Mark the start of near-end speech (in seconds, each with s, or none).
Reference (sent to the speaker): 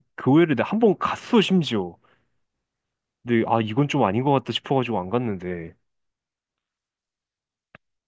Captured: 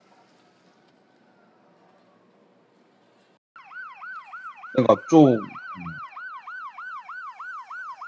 4.7 s